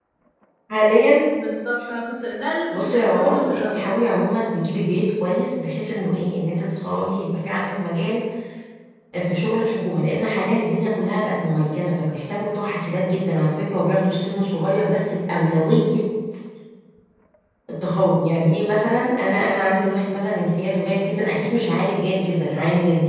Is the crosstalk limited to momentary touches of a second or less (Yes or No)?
No